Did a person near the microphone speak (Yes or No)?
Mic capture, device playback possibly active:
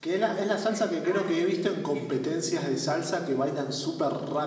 Yes